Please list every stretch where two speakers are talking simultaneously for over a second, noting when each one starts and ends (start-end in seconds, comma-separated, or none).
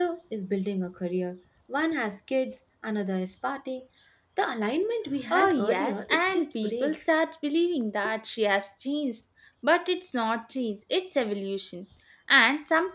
5.3-7.1